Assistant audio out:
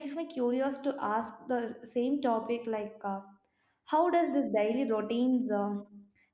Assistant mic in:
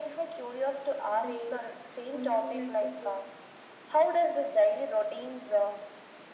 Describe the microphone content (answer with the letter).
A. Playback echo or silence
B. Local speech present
B